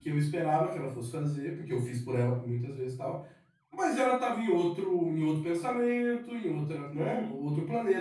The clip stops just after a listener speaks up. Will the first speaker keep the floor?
Yes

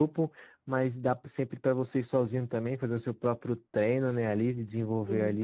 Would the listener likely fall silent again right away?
Yes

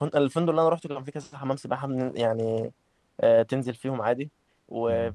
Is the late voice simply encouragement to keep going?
Yes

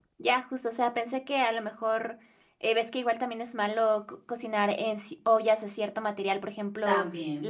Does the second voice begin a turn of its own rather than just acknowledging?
No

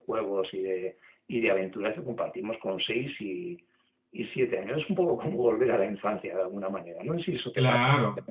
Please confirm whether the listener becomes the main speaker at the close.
Yes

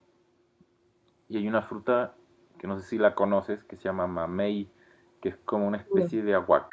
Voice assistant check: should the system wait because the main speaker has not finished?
Yes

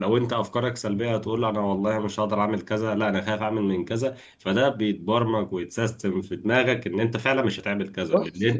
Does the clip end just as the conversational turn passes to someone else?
No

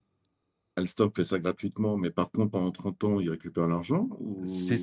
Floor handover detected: Yes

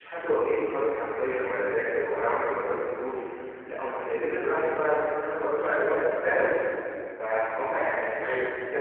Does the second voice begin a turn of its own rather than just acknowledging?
No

